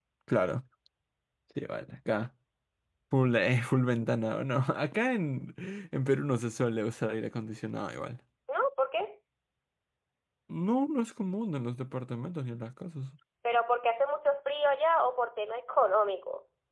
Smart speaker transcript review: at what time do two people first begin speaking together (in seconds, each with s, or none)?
none